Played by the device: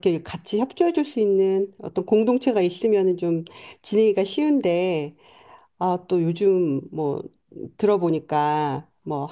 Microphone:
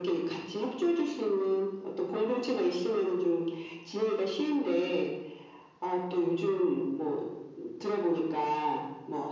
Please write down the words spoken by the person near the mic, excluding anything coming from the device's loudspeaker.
none

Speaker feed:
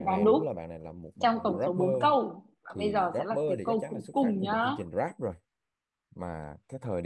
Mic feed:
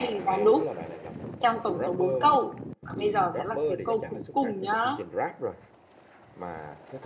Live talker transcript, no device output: none

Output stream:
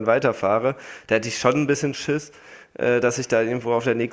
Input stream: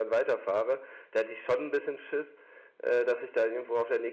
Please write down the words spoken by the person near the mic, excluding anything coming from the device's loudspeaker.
none

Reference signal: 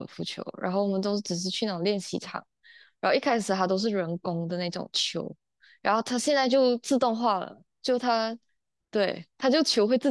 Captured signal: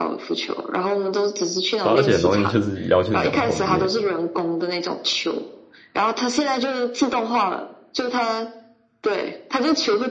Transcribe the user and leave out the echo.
对啊而且很容易就是腰去扭头之类的。

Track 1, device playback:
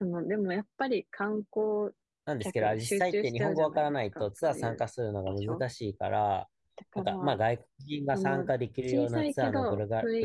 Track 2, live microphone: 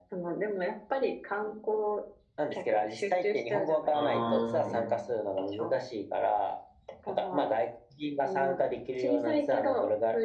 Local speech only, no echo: あー

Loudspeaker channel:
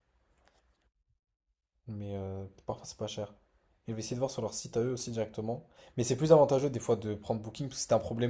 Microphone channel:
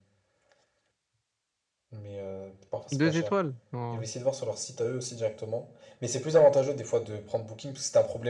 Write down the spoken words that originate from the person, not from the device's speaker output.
Deux étoiles? Non.

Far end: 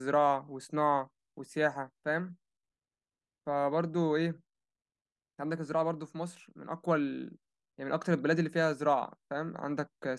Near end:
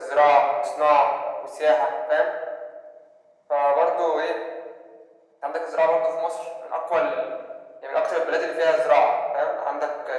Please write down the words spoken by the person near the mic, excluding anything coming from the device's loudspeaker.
none

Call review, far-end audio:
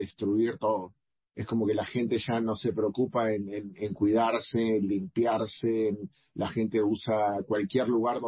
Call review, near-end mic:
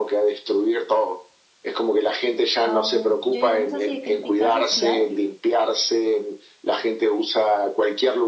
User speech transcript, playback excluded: Am, yo digamos así de crítica social,

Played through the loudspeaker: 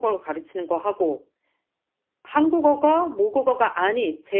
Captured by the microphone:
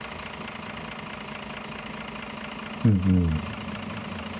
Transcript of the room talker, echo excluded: 음, 음,

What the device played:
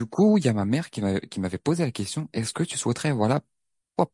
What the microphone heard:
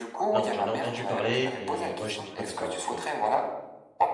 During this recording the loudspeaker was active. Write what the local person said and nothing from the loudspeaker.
non, j'en ai entendu parler, mais moi, je n'y connais pas grand-chose.

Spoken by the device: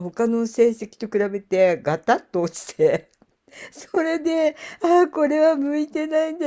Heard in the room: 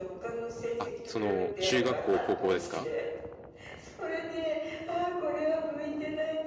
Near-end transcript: あ、その、中学校、高校ですか

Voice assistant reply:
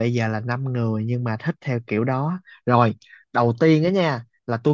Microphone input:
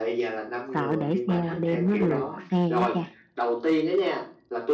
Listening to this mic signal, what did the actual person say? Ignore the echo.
Sợ để xe qua đêm nó luộc xe á cha.

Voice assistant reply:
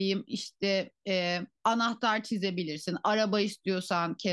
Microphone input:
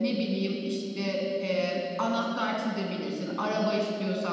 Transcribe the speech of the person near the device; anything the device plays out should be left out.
none

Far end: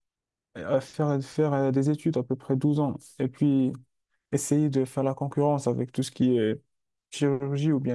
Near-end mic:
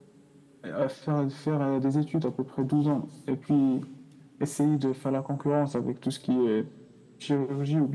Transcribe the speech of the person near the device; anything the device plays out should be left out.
none

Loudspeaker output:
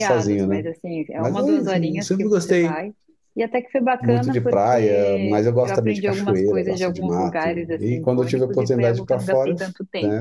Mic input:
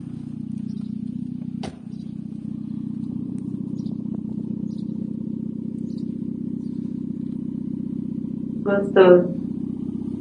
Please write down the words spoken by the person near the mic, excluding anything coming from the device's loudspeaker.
gostoso.

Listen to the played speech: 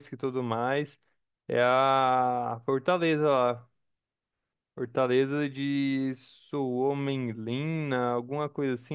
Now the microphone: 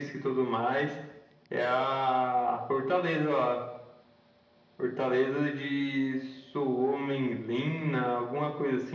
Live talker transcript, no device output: none

